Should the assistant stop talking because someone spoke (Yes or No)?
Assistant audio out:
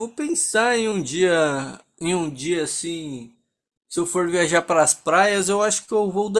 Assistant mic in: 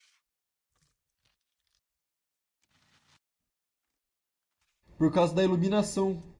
Yes